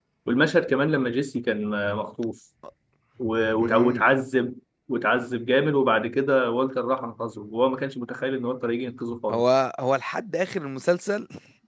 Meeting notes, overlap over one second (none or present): none